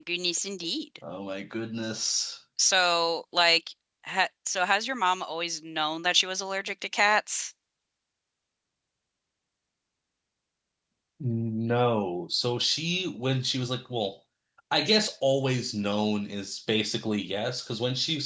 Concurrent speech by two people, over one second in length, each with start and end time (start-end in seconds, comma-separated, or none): none